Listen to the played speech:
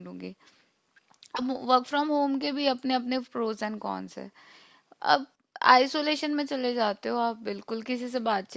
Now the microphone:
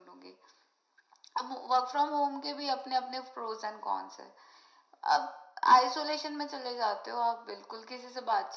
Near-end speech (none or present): none